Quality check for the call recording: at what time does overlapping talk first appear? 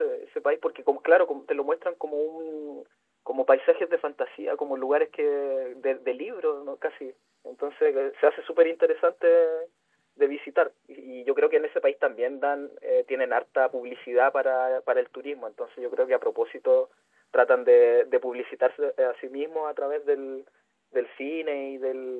none

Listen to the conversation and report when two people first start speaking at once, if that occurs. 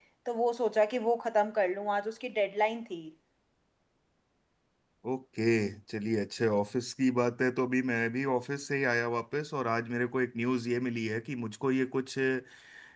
none

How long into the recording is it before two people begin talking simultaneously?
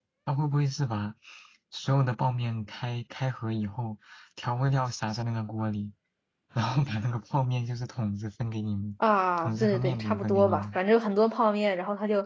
9.4 s

